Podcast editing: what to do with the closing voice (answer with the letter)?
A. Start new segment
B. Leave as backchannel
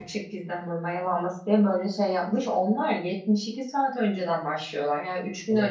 B